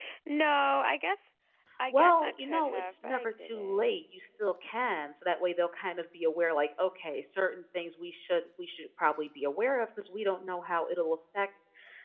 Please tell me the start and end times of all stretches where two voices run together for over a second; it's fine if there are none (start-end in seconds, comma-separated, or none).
1.9-4.0